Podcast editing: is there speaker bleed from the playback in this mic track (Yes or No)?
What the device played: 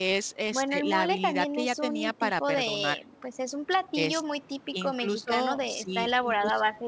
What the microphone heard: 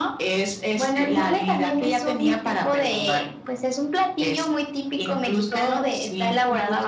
Yes